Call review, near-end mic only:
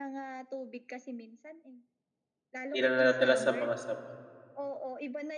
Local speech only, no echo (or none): Hindi na nadadala sa mga sabon.